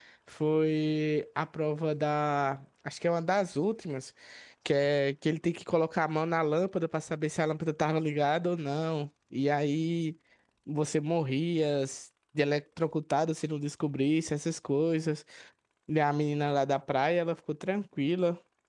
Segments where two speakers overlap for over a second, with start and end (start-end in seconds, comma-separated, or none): none